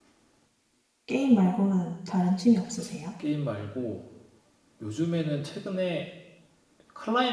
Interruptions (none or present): none